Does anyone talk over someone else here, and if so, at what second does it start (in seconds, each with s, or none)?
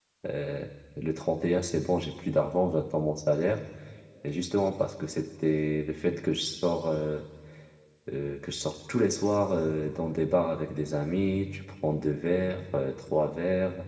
none